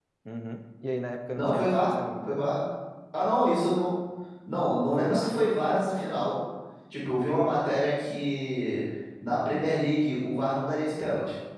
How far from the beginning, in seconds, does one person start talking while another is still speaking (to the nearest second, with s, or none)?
1 s